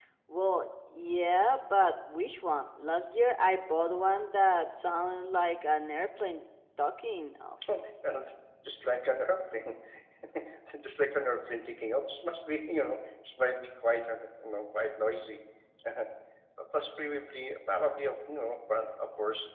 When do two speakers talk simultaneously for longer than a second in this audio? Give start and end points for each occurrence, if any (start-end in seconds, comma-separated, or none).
none